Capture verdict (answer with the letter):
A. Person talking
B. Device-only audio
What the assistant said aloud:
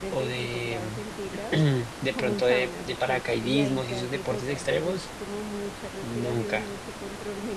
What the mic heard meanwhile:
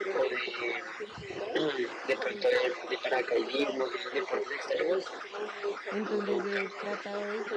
A